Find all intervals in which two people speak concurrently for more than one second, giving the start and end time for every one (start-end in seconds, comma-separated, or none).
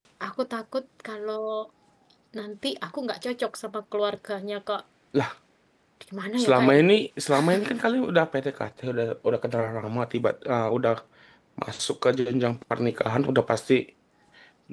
none